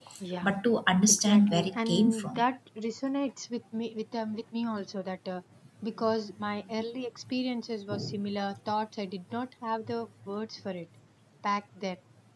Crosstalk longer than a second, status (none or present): present